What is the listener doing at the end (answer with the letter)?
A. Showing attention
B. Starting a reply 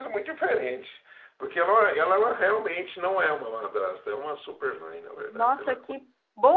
B